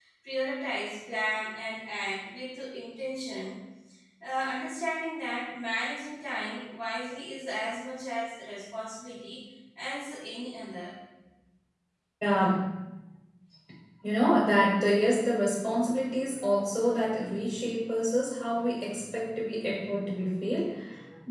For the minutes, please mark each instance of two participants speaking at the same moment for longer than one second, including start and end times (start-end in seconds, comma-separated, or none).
none